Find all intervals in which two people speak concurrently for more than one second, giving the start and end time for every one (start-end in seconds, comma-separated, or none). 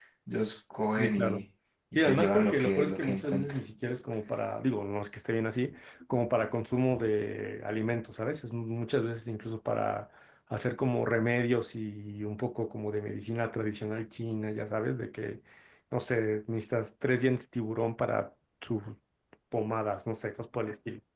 1.9-3.6